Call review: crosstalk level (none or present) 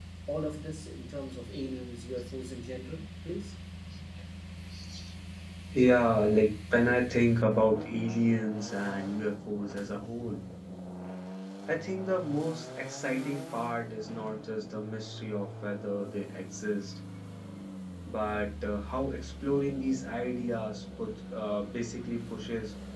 none